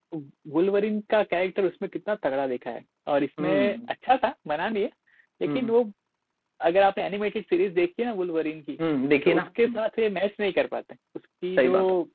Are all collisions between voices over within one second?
Yes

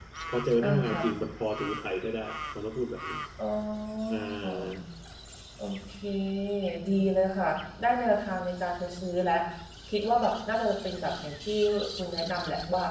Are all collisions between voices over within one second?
Yes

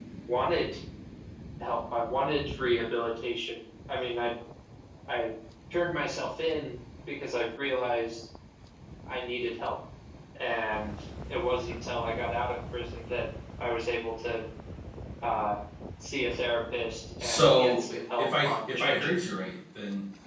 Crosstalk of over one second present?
Yes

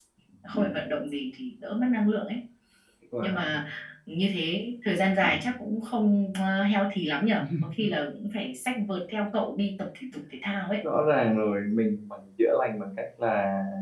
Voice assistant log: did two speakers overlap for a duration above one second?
No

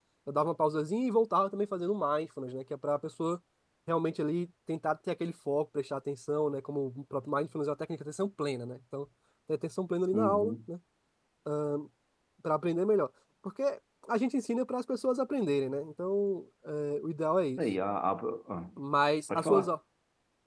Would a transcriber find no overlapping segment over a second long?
Yes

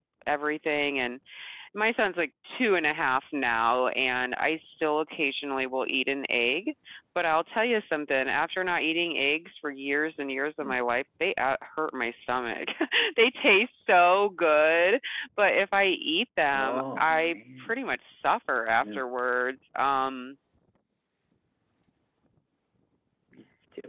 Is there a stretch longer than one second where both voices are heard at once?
Yes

